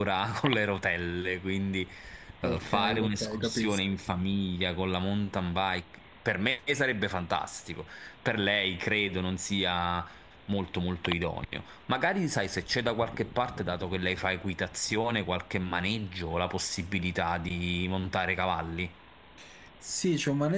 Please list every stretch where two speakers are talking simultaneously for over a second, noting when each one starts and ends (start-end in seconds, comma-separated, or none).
2.4-3.8